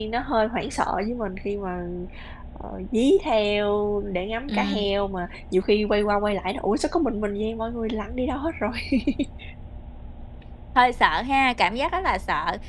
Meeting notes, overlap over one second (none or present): none